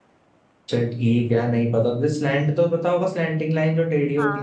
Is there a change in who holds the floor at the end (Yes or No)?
Yes